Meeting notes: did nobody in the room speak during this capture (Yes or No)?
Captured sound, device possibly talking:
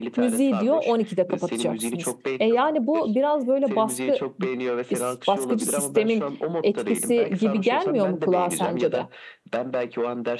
No